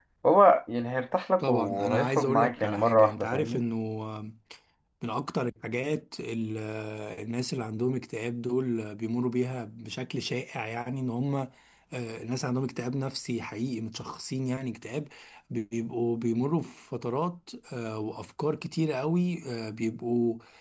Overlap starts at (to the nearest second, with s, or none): 1 s